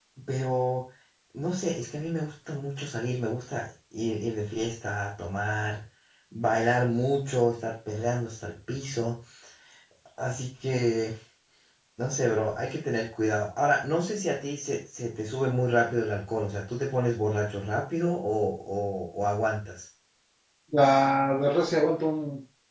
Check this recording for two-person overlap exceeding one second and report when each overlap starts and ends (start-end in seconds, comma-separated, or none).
none